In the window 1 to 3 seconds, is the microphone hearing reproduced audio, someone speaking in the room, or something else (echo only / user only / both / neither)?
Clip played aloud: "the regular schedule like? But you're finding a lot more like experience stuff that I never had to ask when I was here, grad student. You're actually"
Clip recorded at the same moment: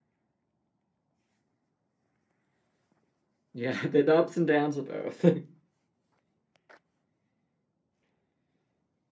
neither